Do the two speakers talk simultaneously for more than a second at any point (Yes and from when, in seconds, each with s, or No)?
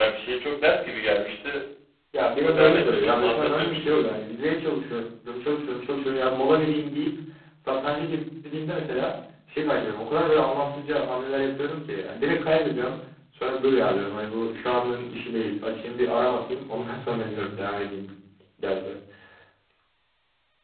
Yes, from 2.4 s